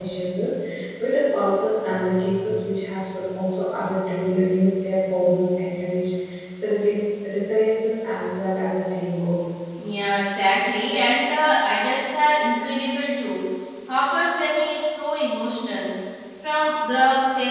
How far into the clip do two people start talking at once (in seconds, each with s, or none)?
none